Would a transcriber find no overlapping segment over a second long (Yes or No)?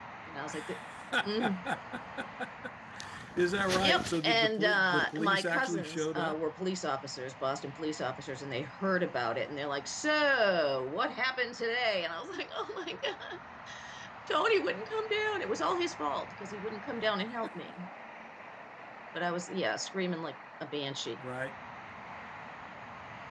No